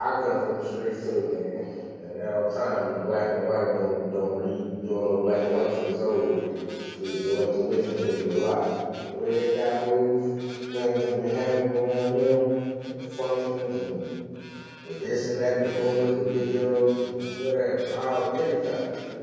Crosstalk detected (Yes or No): No